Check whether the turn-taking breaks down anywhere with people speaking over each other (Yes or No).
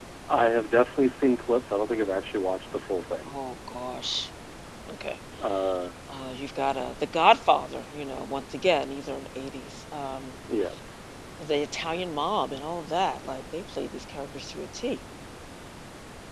No